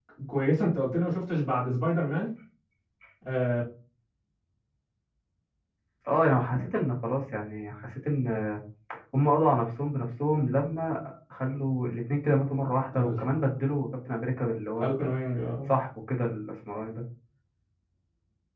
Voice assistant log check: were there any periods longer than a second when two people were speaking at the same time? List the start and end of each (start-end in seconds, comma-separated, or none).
none